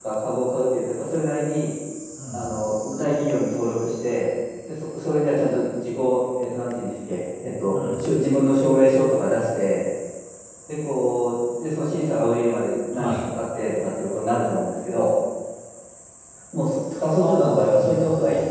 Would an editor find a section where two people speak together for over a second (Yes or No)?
Yes